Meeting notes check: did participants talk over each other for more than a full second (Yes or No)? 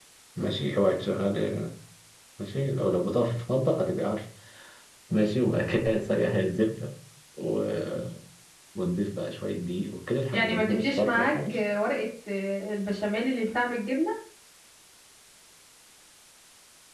Yes